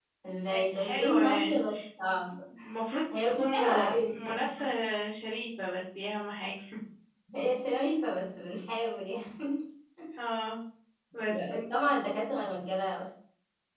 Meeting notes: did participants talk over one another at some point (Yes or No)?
Yes